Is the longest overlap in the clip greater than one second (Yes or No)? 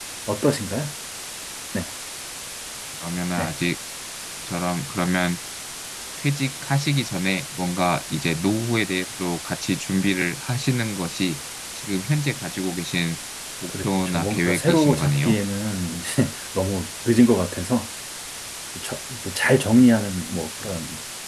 Yes